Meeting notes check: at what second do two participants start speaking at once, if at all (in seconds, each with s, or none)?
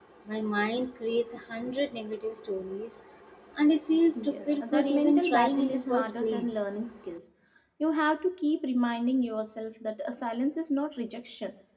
4.2 s